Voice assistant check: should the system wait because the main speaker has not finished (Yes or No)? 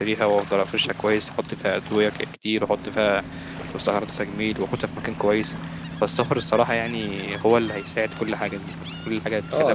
No